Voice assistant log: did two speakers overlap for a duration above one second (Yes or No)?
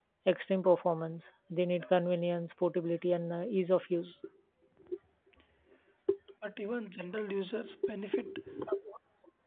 No